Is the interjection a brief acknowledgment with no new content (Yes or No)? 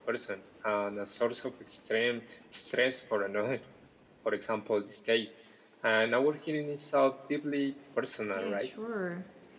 No